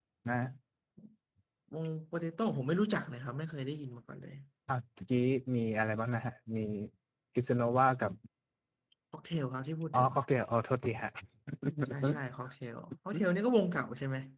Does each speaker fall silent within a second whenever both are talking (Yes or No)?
Yes